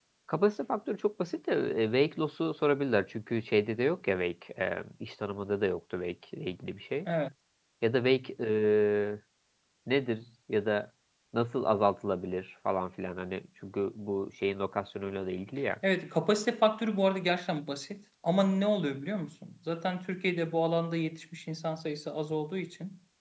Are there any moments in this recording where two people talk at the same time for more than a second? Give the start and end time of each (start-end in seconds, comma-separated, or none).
none